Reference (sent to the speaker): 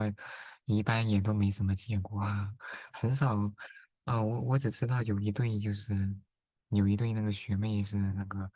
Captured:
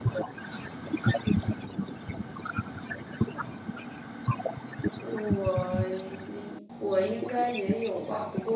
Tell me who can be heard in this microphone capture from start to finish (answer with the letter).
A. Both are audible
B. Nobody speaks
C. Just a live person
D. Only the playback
A